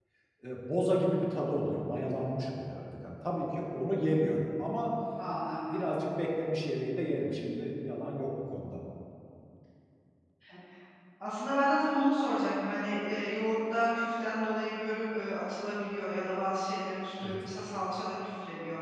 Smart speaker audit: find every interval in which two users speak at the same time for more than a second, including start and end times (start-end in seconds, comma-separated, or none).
none